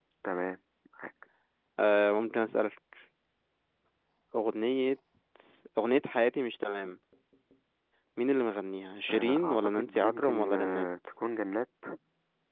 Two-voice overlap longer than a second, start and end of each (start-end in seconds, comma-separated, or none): 9.1-10.9